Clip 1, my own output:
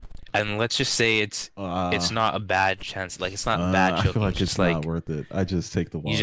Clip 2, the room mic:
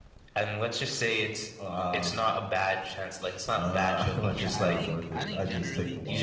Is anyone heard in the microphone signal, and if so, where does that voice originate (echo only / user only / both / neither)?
both